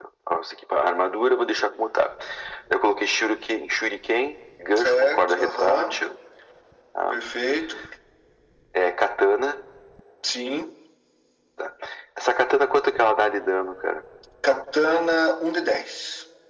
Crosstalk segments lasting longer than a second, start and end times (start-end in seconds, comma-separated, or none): 4.8-6.0